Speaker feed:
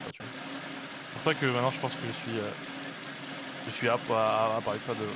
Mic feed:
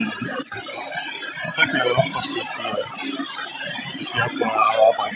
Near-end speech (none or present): none